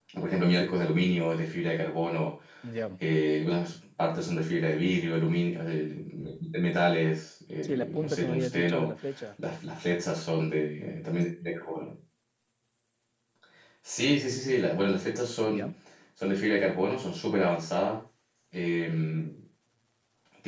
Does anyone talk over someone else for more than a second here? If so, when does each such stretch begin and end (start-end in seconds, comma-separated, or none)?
7.6-8.9